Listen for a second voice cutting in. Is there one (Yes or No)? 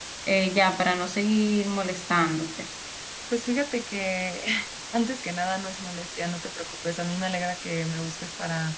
No